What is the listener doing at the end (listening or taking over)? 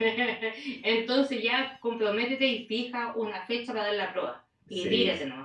taking over